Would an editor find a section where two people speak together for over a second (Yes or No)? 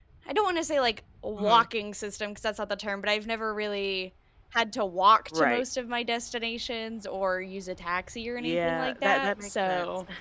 Yes